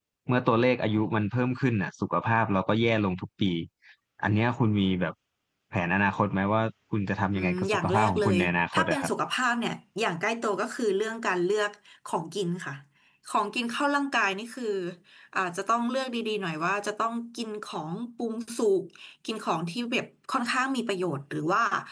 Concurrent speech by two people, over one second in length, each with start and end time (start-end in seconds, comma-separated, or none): 7.3-9.1